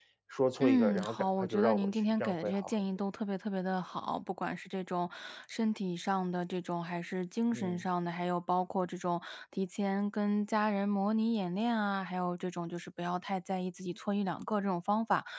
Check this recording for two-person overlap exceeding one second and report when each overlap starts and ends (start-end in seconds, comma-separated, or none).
0.6-2.9